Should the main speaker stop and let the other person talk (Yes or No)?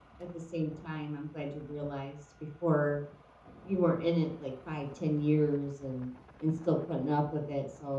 No